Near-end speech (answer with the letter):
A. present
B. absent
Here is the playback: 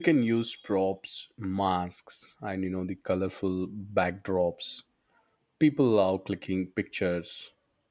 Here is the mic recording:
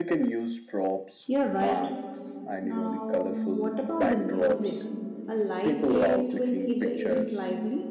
A